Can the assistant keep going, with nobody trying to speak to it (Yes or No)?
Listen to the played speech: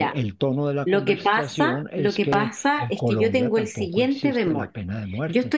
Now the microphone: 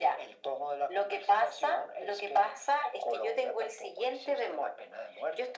Yes